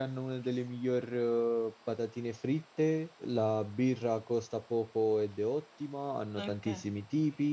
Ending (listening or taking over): listening